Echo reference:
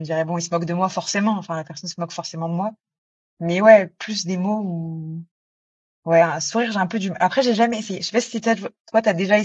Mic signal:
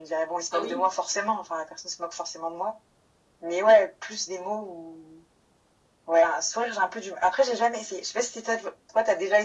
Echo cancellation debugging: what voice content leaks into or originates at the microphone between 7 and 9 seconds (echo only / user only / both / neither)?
echo only